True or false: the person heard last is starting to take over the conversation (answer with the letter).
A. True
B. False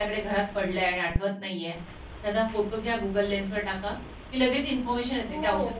A